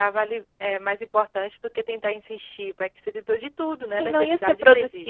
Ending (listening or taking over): taking over